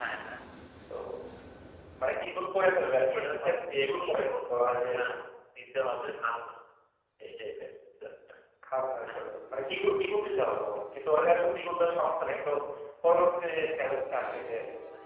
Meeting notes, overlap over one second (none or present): present